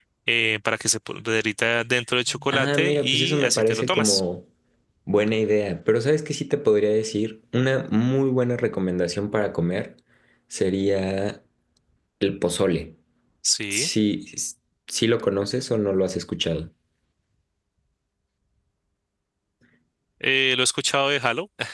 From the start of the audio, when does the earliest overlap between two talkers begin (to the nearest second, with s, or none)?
2 s